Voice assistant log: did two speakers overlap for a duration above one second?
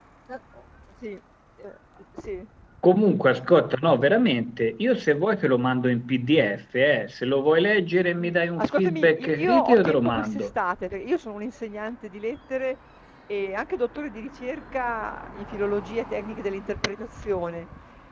Yes, from 8.2 s

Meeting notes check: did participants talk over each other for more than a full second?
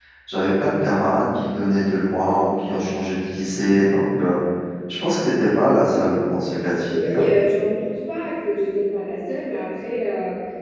No

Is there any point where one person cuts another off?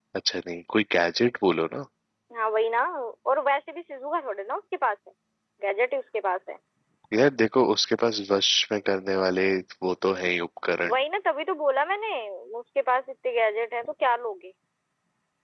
No

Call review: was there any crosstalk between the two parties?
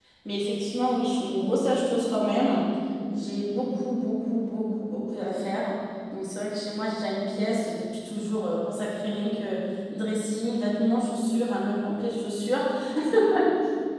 No

